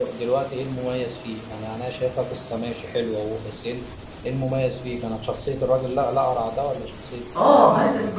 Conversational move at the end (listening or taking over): taking over